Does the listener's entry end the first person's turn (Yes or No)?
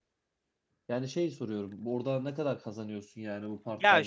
Yes